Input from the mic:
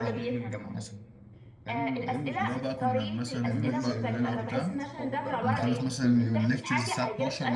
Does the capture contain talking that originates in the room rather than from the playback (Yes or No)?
Yes